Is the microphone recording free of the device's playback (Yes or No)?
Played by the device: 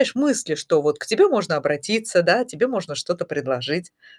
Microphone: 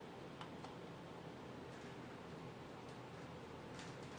Yes